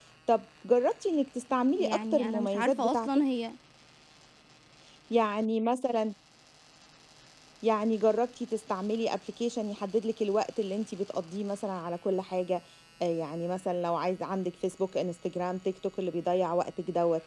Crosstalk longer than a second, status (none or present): present